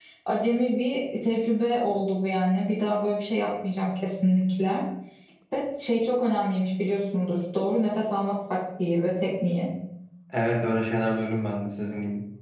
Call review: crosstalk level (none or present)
none